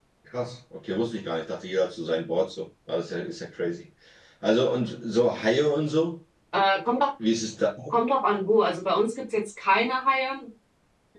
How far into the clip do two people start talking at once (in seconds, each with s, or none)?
none